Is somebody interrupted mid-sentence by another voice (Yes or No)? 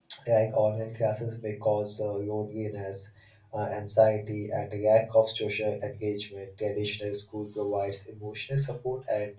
No